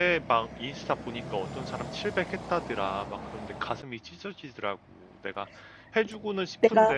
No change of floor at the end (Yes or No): Yes